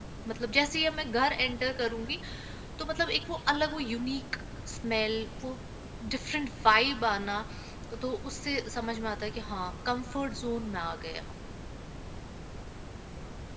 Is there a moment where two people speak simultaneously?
No

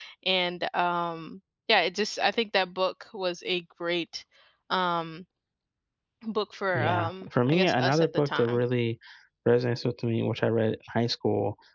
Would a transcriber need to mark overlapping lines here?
Yes, from 6.7 s

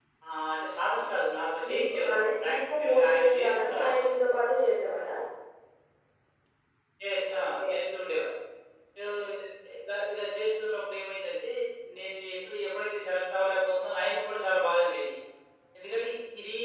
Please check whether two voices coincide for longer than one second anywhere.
Yes, from 1.7 s

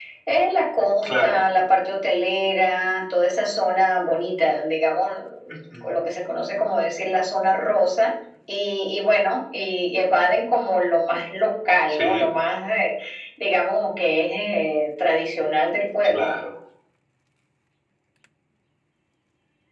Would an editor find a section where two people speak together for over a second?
No

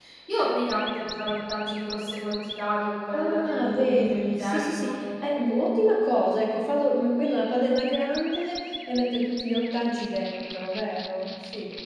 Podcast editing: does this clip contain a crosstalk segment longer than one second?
Yes, from 3.1 s

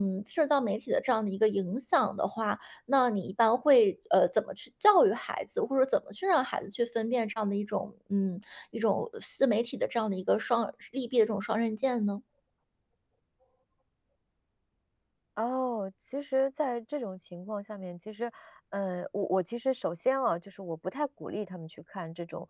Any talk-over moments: No

